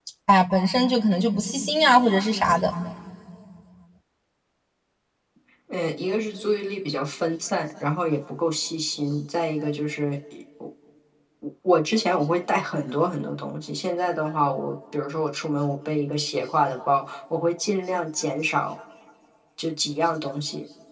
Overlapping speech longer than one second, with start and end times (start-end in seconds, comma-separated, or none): none